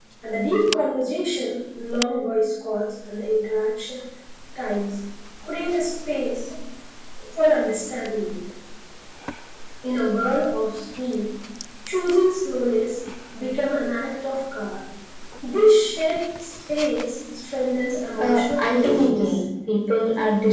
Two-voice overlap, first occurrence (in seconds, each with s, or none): 18.2 s